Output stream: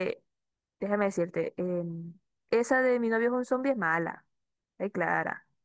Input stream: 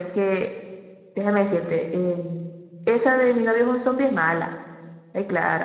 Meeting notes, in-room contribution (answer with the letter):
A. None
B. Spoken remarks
A